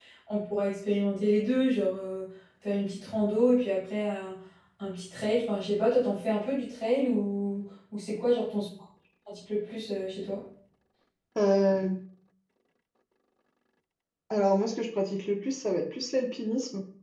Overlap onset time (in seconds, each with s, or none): none